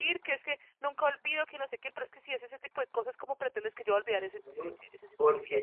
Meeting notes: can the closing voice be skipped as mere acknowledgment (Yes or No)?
No